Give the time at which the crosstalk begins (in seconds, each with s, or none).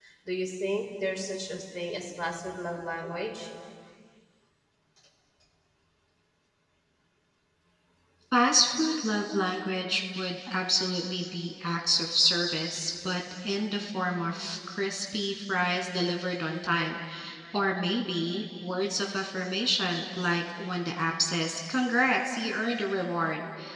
none